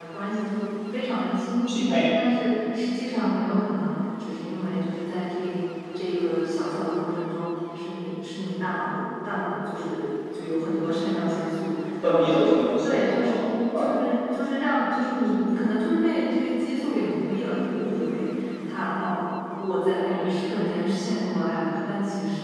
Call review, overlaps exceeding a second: present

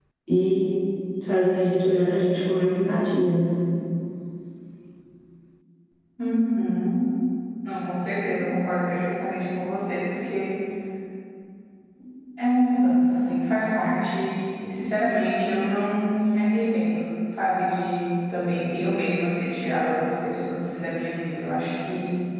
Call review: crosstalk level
none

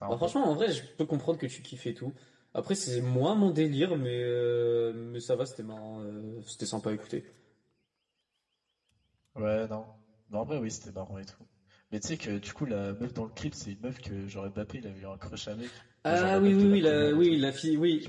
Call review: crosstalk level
present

